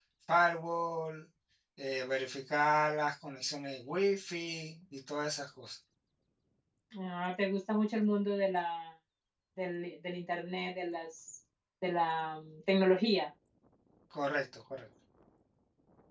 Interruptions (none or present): none